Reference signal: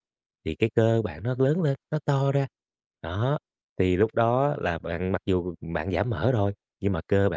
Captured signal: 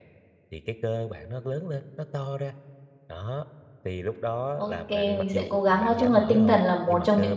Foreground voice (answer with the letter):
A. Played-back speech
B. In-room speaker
B